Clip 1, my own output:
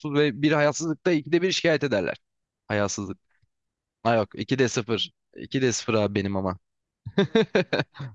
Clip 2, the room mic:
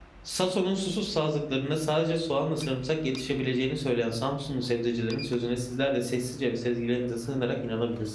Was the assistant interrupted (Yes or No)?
Yes